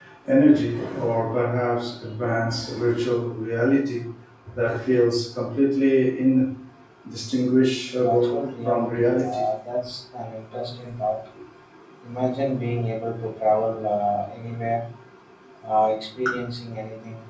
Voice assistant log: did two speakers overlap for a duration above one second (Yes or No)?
Yes